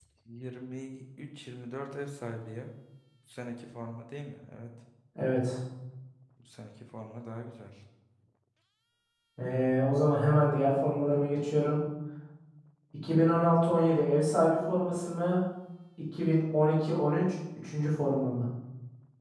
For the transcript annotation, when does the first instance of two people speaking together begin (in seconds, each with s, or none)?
none